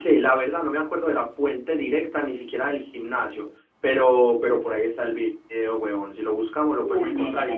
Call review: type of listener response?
taking over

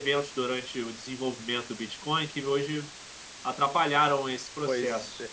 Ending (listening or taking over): taking over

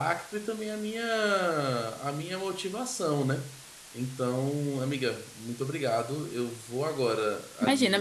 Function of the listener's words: taking over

